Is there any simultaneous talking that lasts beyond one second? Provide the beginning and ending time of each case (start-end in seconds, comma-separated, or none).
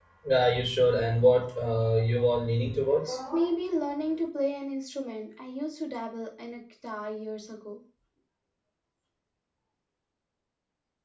none